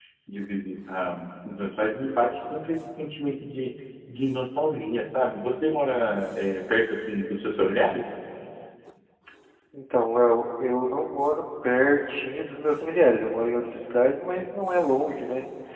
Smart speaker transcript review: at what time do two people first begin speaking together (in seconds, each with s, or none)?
none